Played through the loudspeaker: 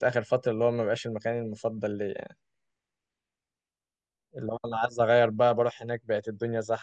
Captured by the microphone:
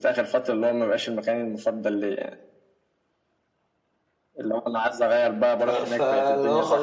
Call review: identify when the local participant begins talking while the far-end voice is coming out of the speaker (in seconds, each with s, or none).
5.6 s